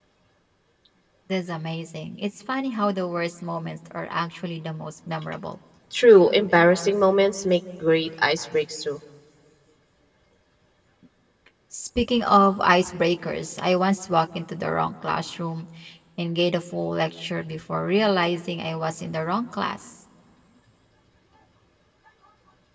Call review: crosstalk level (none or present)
none